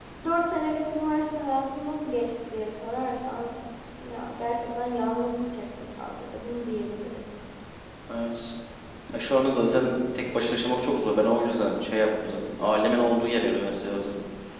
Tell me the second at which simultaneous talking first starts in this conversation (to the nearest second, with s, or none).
none